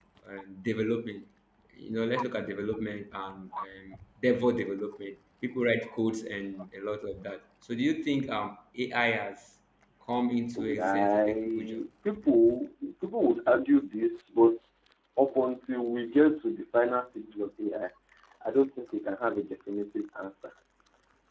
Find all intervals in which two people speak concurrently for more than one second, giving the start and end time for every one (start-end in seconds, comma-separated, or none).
10.6-11.8